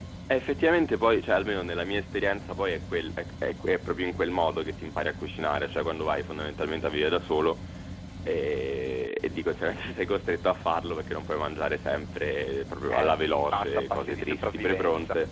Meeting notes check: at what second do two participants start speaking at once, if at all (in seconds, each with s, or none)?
12.9 s